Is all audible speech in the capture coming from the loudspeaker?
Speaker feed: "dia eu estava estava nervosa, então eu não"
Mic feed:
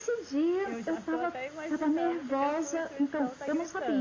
No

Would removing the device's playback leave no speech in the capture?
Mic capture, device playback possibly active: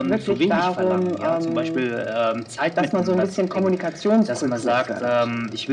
Yes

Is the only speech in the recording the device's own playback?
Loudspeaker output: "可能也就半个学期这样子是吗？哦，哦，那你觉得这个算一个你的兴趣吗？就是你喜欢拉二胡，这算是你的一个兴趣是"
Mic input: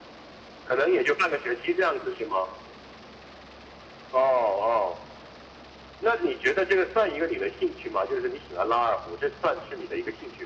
Yes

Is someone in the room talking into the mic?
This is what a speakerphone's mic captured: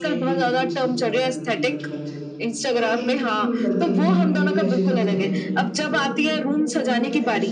Yes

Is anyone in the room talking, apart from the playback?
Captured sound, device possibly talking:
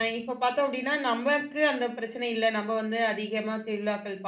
Yes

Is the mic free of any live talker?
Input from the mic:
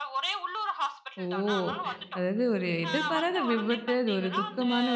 No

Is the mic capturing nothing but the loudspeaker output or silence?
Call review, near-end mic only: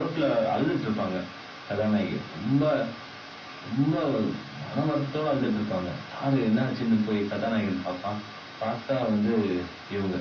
Yes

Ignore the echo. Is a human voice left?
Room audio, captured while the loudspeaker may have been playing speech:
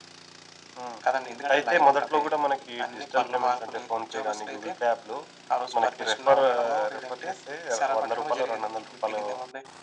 No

